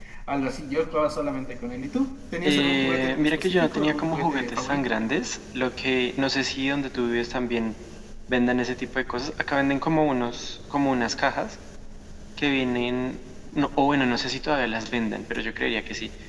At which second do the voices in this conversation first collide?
2 s

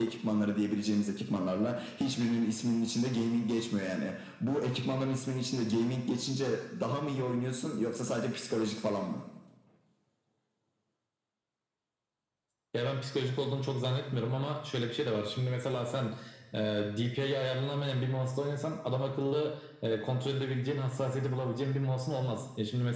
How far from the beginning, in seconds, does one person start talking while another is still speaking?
none

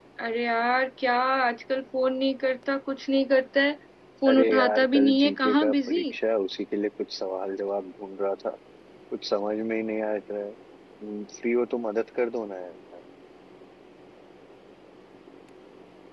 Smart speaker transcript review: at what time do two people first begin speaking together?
4 s

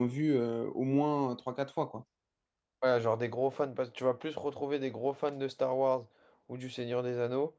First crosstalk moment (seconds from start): none

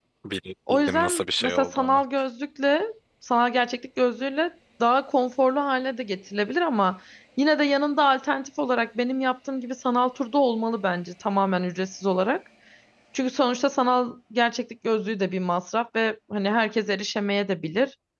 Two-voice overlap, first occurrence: 1 s

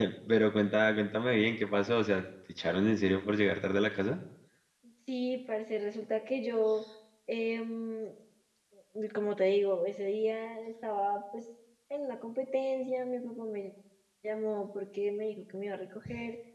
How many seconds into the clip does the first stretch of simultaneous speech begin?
none

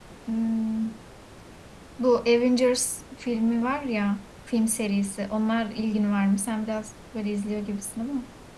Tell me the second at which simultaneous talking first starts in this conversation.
none

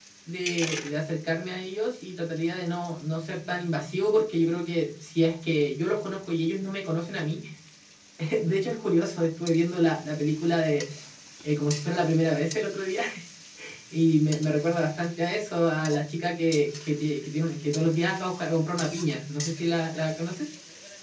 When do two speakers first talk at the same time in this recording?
none

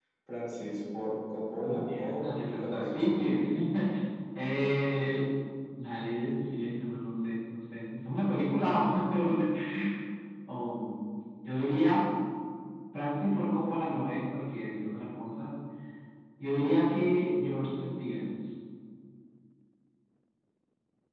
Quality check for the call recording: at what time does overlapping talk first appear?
2 s

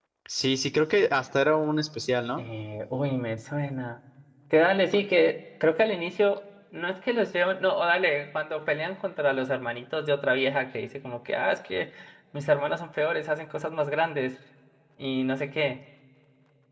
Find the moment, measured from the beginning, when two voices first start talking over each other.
none

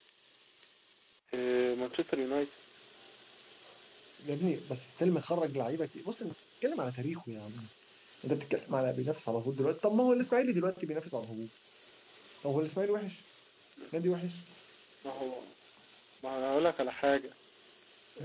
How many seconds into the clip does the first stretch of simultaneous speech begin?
none

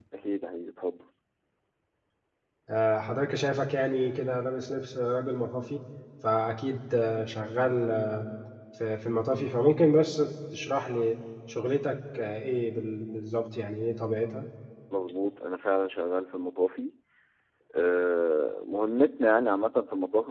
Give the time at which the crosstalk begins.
none

